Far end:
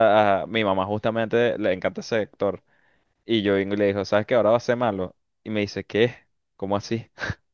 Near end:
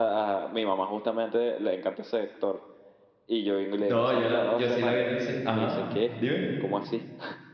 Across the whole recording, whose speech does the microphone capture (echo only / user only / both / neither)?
both